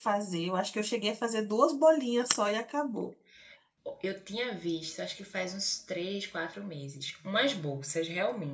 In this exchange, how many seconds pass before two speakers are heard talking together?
none

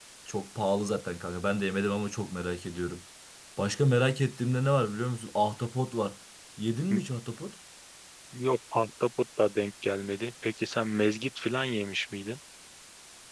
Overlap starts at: none

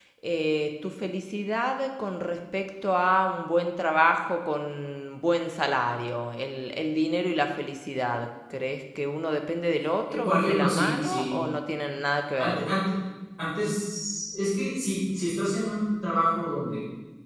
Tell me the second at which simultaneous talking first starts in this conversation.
10.1 s

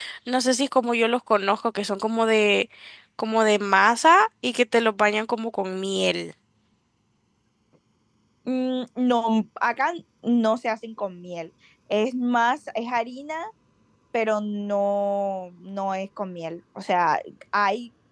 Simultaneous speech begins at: none

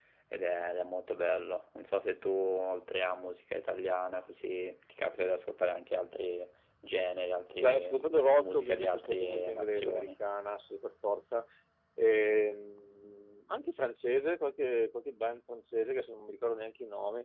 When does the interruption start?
7.6 s

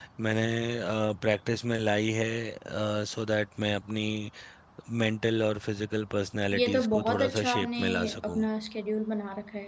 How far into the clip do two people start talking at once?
6.5 s

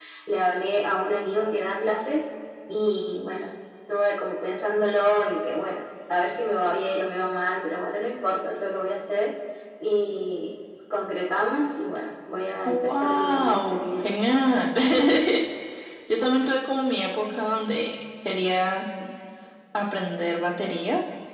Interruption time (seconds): 12.7 s

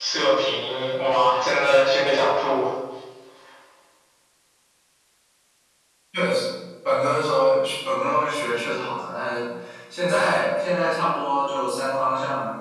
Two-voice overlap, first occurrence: none

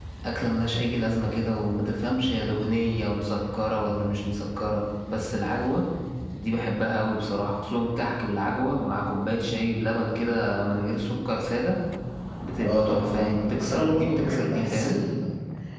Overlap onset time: 12.6 s

